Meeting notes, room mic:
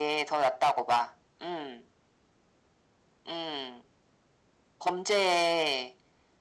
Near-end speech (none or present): none